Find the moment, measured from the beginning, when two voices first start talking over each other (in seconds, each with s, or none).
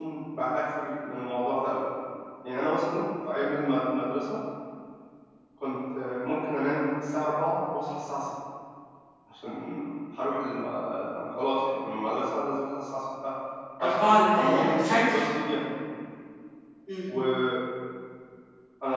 13.8 s